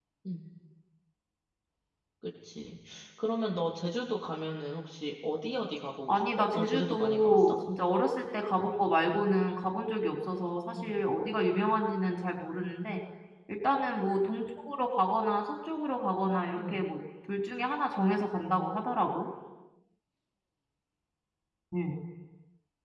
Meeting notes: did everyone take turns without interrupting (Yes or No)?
No